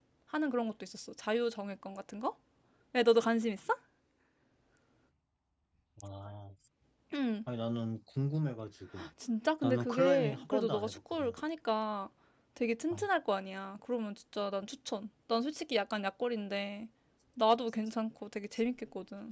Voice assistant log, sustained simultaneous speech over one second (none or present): present